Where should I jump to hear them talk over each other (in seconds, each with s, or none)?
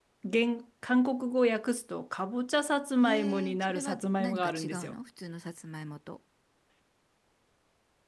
3.0 s